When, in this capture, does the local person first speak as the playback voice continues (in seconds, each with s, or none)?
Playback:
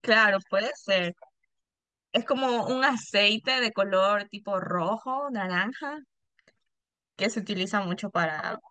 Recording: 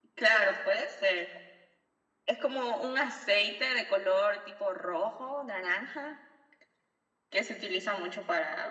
none